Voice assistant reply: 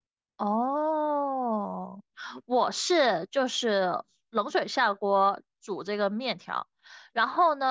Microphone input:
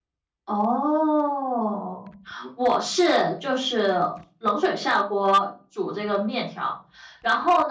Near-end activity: none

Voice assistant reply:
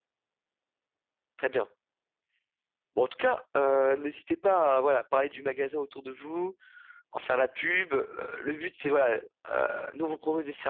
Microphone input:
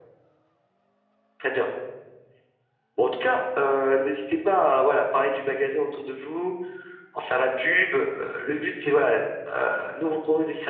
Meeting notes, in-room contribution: none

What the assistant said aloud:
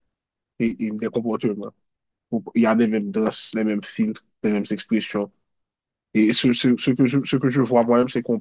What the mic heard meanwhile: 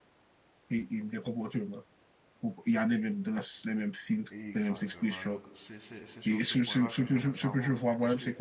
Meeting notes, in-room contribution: present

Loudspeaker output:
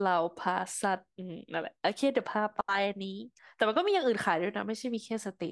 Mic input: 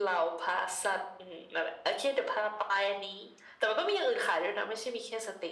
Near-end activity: none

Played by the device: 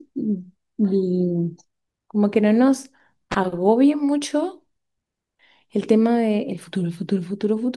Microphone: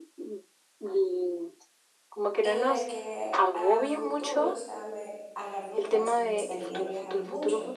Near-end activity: present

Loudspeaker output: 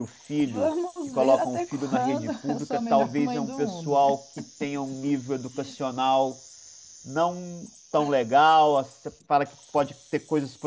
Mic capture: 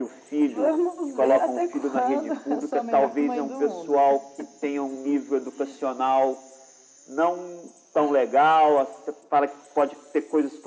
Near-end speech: none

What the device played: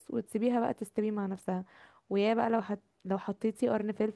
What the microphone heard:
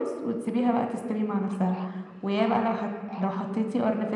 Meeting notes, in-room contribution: none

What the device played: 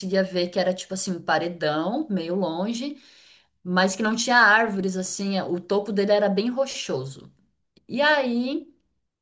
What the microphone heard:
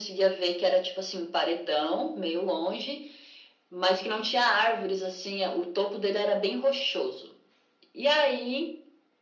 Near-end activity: none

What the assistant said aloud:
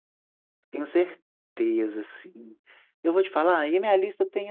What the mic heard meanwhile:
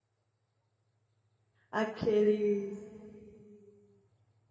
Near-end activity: present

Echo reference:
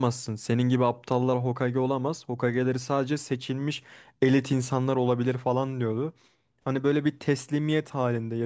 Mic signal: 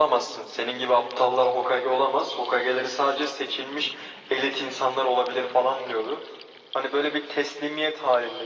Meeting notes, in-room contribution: none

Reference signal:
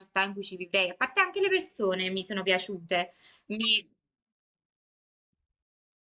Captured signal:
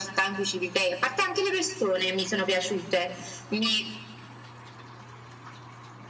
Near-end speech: none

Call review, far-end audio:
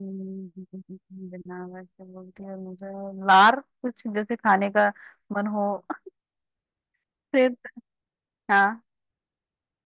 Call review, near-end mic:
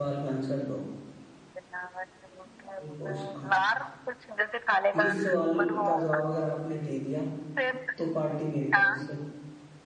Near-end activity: present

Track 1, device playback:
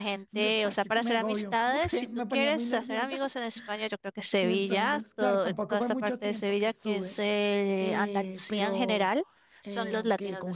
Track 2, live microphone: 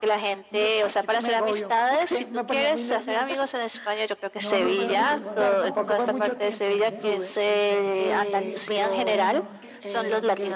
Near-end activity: present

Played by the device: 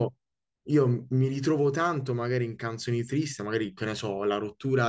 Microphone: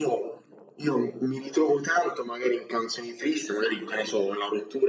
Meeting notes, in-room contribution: none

